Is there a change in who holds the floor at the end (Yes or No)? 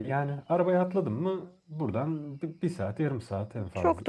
Yes